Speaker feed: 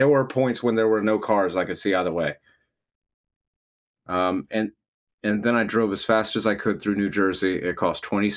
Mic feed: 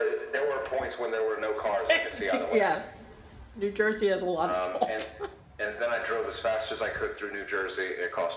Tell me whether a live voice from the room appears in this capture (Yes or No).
Yes